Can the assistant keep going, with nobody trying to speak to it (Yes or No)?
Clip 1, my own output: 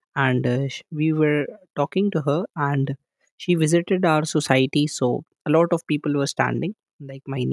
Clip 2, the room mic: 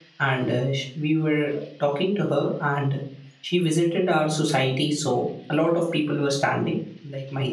Yes